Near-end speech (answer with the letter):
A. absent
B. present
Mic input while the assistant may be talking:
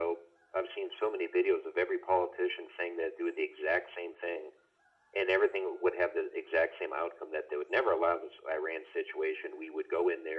A